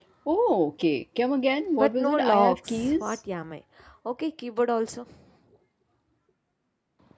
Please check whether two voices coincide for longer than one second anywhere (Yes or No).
Yes